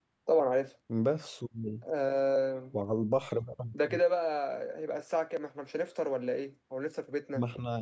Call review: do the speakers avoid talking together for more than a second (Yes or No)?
Yes